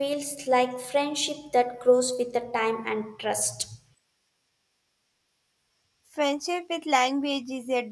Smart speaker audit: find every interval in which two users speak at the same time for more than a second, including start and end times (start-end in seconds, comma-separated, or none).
none